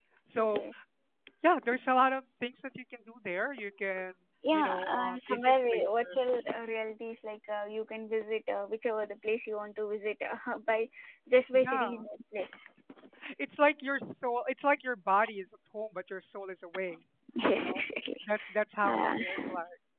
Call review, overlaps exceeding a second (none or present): present